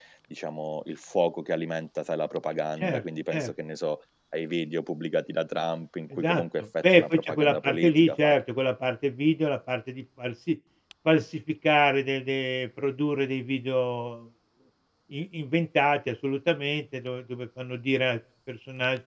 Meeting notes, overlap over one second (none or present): present